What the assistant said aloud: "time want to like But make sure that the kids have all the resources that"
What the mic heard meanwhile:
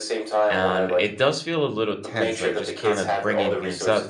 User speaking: Yes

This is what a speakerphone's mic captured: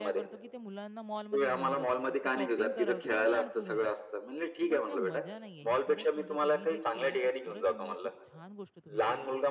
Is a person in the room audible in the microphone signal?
Yes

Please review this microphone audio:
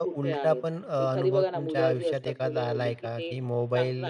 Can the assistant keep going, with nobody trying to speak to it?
No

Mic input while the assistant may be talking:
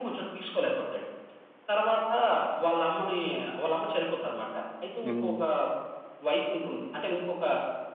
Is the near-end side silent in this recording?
No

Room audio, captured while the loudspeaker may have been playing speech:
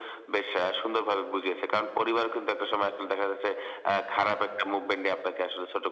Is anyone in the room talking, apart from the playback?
No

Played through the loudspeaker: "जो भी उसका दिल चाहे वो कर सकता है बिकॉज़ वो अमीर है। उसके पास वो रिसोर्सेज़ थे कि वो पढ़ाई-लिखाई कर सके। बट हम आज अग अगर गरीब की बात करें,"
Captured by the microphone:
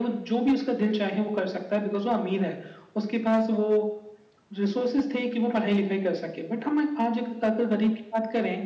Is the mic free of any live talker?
Yes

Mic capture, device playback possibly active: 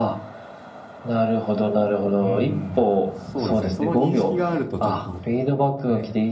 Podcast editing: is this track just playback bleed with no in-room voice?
No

